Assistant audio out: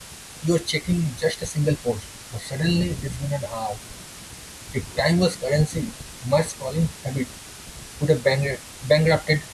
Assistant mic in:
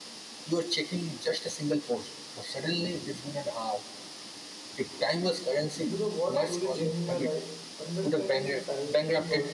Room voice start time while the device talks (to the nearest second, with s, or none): 6 s